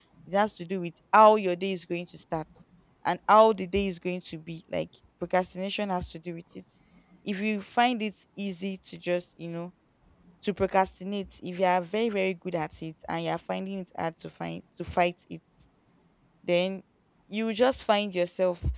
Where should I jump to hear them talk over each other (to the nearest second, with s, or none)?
none